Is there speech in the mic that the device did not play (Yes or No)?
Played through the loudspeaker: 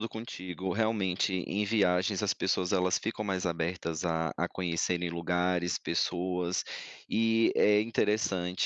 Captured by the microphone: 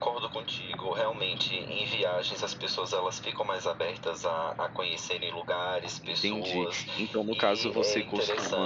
Yes